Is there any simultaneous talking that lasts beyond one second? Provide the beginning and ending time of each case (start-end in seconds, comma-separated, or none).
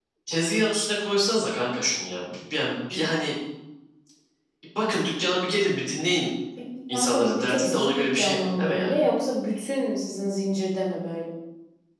6.9-9.0